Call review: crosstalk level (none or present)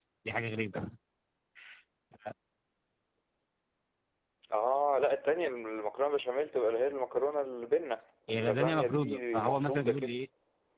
present